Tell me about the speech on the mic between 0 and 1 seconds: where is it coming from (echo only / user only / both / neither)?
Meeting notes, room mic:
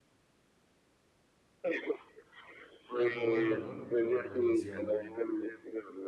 neither